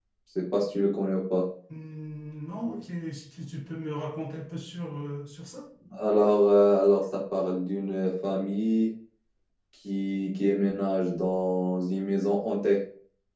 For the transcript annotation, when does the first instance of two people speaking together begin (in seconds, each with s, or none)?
none